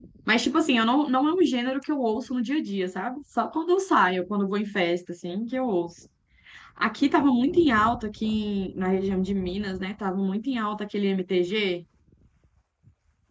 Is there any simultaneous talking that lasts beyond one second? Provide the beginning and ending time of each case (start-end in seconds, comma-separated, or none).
none